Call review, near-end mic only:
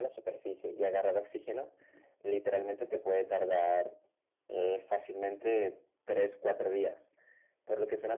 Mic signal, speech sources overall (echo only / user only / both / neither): echo only